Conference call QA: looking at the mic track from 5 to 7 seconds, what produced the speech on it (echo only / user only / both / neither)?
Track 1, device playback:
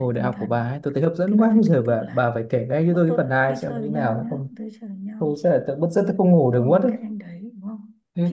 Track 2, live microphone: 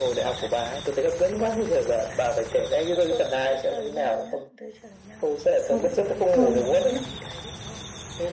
both